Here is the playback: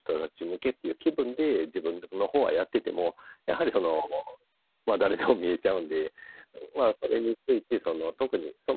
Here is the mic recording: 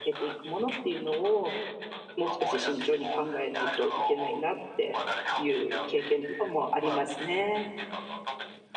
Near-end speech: present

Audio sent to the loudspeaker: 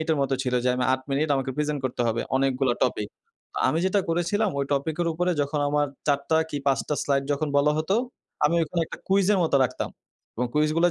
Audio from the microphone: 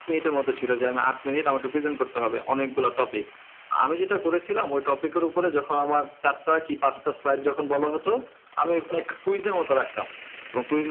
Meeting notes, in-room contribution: none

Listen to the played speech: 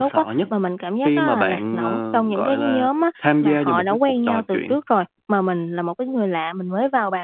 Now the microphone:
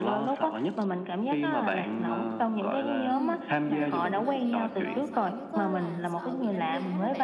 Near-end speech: present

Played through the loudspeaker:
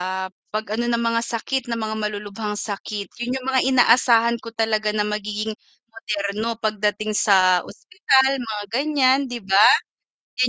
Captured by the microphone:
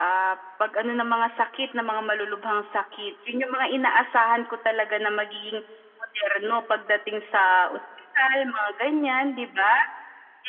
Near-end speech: none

